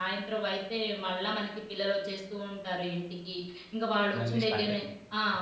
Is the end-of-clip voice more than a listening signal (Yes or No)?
No